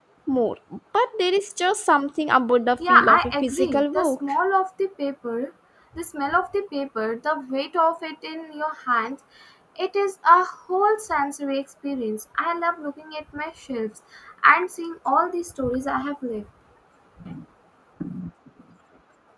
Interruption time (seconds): 2.8 s

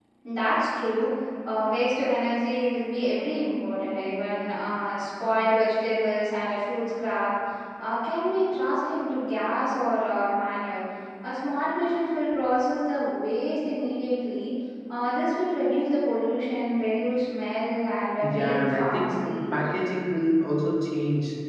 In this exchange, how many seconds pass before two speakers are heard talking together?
18.2 s

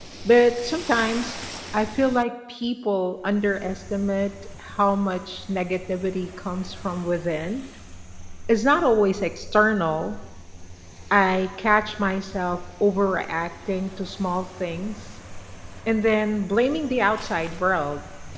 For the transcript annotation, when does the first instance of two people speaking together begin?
none

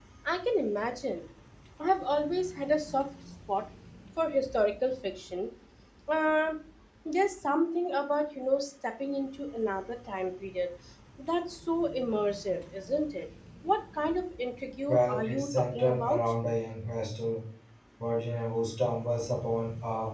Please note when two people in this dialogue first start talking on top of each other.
14.9 s

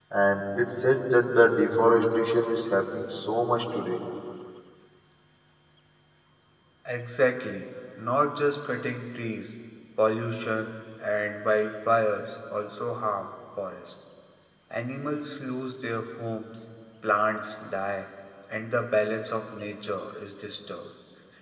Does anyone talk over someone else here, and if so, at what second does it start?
none

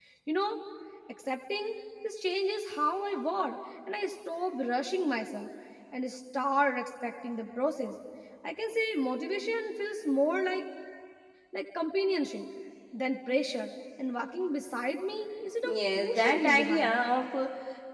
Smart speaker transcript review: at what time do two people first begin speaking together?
15.6 s

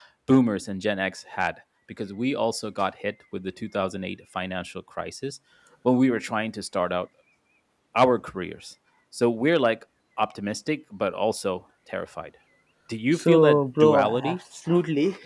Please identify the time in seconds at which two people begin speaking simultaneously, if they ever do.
13.1 s

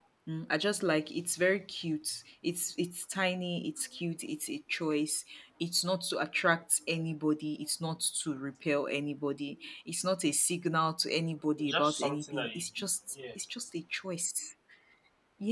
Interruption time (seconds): 11.6 s

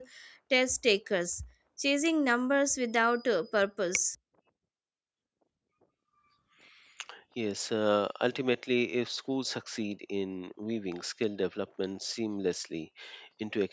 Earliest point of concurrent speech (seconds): none

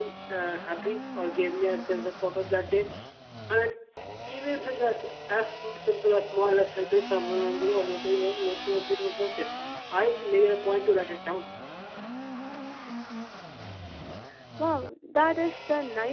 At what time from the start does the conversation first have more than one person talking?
none

